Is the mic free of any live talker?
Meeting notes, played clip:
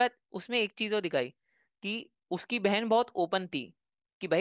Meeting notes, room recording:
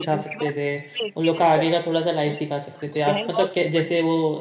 No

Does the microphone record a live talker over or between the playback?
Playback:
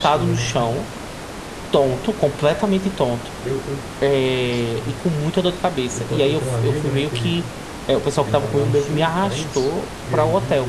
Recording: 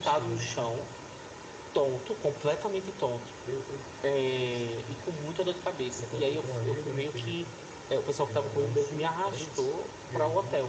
No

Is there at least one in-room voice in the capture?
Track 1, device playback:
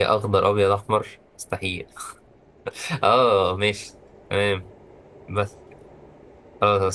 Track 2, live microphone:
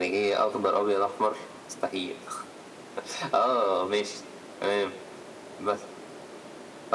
No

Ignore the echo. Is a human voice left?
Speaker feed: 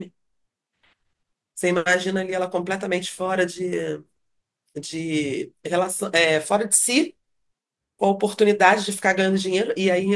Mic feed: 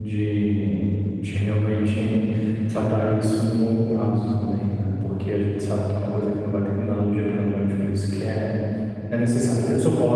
Yes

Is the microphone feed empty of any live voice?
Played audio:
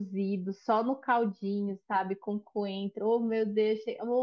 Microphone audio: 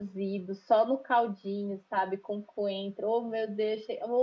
Yes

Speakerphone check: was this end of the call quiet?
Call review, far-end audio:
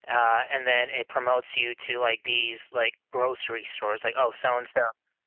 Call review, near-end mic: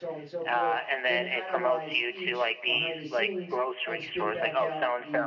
No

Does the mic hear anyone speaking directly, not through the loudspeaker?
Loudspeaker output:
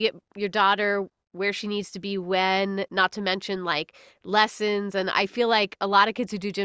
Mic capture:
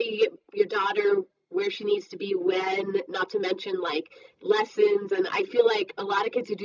No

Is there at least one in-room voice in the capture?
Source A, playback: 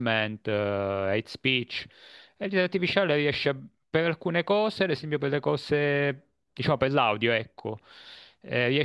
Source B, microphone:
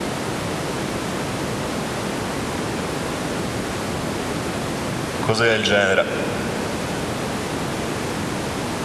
Yes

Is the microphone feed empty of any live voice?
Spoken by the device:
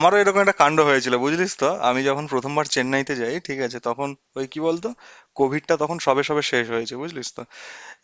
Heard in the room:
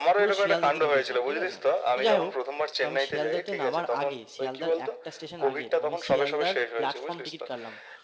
No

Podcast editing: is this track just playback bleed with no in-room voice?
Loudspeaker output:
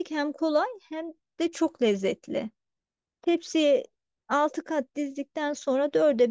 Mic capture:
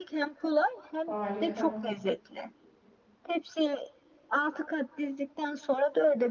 No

